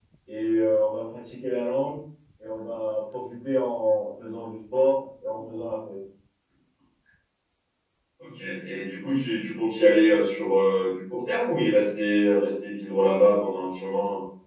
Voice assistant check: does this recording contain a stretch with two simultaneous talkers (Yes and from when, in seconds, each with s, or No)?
No